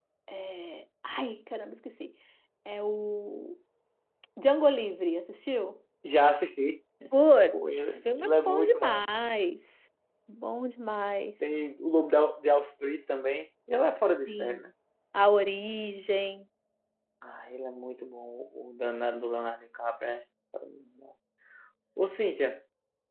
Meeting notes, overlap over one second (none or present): present